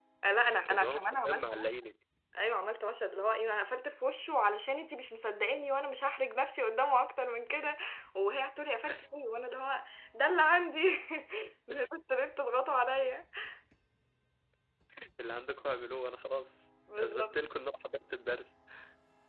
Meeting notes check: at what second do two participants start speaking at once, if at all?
0.6 s

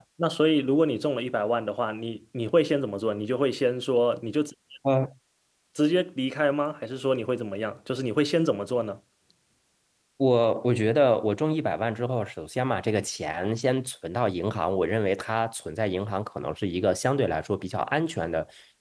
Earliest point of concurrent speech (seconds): none

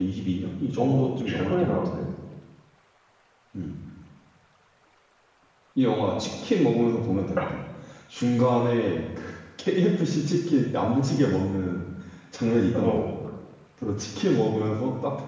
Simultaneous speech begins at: 0.8 s

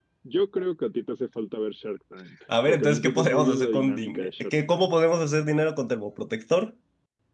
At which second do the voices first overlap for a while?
2.5 s

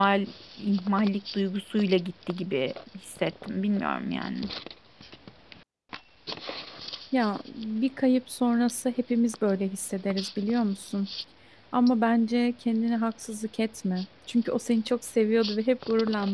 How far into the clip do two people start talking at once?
none

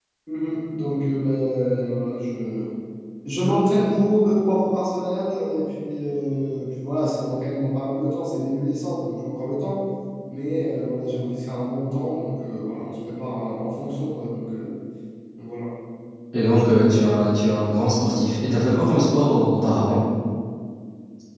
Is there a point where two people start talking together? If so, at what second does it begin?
none

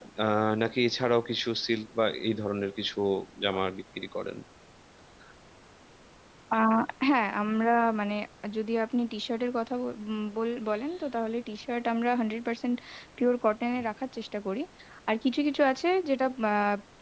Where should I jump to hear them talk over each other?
none

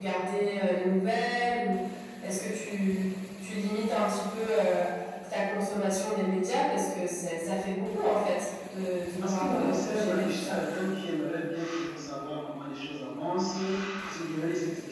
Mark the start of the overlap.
9.2 s

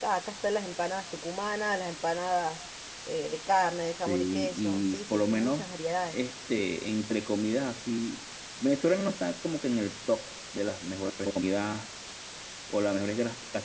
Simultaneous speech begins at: 4.1 s

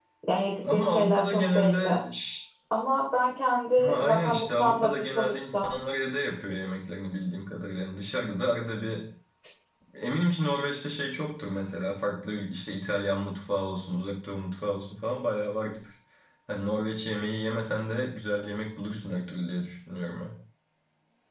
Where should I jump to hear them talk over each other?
0.7 s

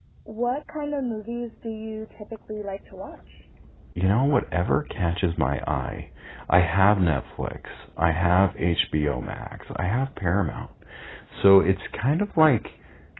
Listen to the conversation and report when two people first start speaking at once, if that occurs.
none

